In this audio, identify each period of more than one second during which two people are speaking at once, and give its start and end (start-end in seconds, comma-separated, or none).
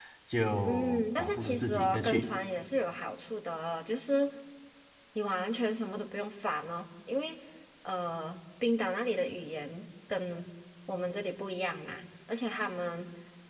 0.7-2.2